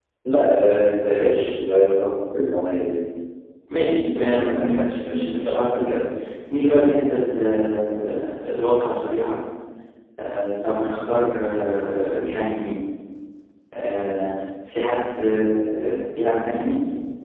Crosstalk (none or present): present